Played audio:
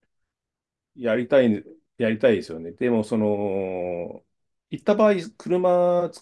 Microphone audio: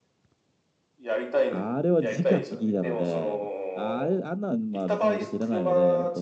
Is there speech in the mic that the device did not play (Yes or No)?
Yes